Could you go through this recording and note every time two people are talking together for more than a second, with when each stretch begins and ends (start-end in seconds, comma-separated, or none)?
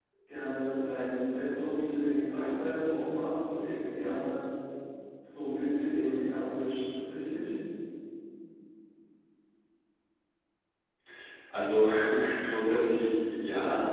none